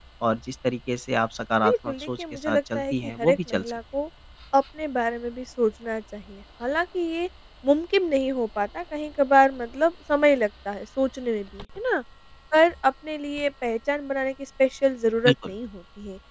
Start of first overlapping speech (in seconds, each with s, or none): 1.6 s